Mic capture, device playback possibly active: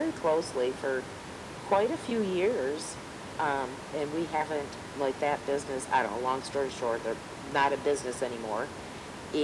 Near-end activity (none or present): none